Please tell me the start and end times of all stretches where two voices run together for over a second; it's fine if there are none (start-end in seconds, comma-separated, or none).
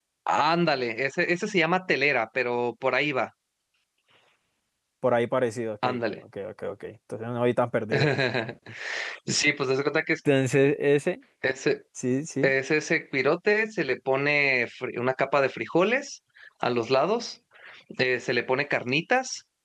none